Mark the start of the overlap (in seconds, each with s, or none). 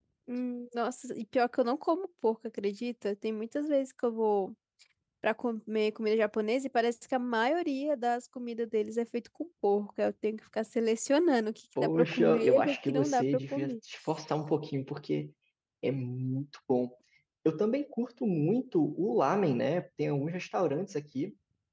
11.8 s